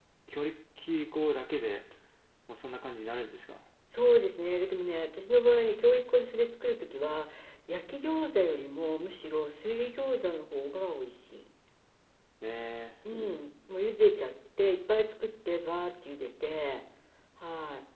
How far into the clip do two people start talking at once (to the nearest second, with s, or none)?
none